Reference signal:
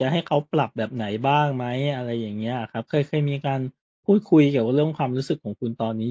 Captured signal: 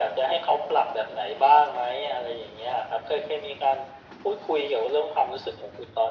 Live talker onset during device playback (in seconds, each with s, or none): none